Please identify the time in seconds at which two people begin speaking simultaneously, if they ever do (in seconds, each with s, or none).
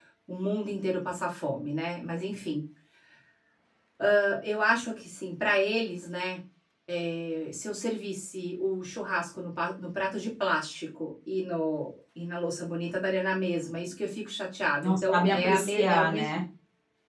14.8 s